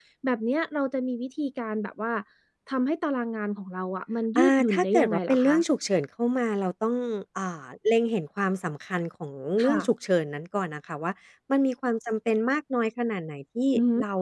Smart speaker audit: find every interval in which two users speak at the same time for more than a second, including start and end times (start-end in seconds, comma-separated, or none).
4.4-5.6